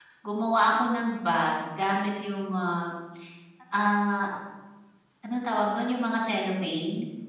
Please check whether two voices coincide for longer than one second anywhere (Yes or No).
No